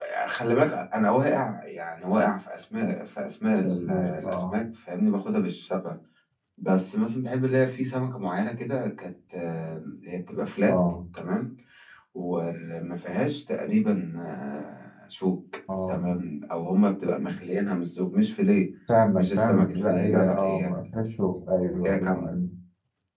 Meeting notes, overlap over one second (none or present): present